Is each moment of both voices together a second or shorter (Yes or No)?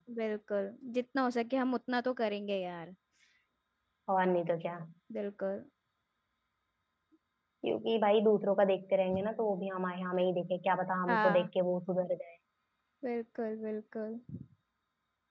Yes